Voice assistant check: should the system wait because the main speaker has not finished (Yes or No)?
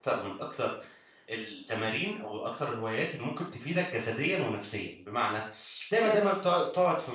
Yes